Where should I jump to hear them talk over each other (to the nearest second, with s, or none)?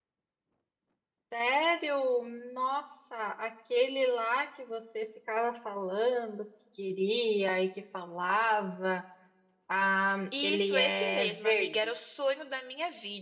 10 s